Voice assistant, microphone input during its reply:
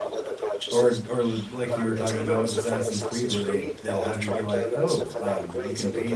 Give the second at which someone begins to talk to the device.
1 s

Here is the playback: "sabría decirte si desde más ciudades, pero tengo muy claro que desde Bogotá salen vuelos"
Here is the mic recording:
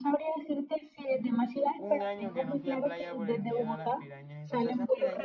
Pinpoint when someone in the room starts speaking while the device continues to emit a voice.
2 s

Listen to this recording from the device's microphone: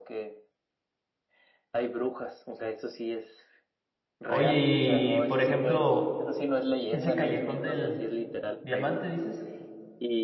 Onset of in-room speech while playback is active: 4 s

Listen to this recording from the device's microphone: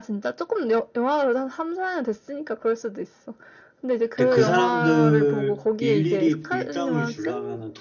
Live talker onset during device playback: 4 s

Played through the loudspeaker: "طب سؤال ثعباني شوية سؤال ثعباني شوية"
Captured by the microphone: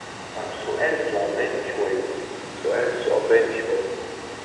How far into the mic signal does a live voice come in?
none

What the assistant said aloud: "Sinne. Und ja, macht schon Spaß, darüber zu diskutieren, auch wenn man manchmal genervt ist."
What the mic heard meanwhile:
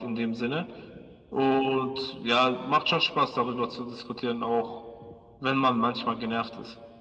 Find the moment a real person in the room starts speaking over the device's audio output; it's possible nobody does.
none

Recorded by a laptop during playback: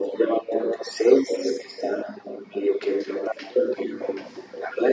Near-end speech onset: none

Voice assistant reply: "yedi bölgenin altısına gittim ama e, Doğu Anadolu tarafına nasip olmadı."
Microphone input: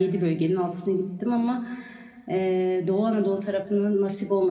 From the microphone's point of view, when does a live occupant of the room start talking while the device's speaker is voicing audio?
none

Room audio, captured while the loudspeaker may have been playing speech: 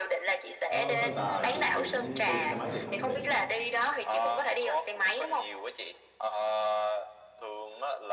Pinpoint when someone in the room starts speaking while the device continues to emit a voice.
1 s

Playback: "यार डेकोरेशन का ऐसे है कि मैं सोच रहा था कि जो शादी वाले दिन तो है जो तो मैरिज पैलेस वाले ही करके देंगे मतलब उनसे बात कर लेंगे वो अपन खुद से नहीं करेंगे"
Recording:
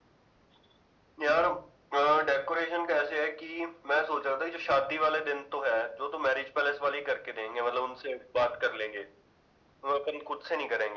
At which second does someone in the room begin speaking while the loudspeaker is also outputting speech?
none

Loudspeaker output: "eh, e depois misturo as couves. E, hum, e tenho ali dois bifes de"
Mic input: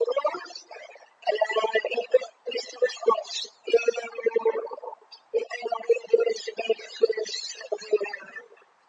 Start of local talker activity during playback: none

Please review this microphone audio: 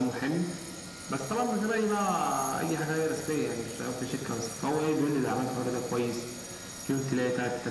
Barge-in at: none

